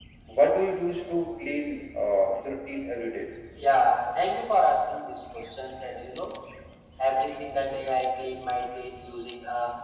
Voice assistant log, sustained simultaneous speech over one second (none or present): none